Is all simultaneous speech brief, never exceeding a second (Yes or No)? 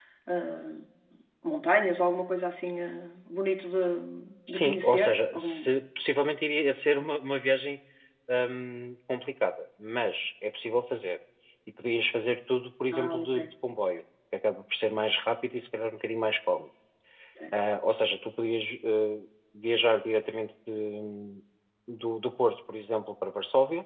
No